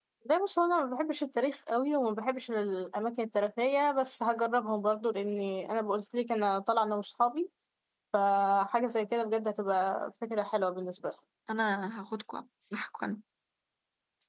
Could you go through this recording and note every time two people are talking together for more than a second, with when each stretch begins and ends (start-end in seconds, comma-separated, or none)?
none